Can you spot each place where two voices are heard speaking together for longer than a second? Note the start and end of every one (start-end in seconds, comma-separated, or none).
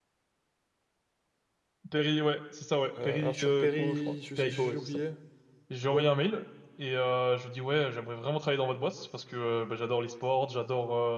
3.0-5.0